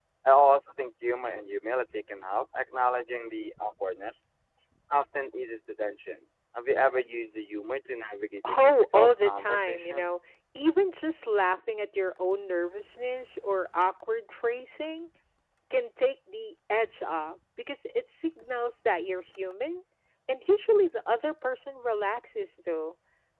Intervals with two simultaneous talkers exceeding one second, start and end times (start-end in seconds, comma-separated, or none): 8.5-10.1